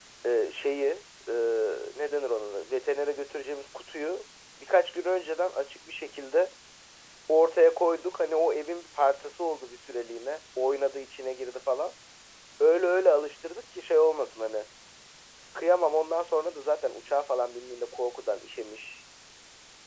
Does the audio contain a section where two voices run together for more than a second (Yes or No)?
No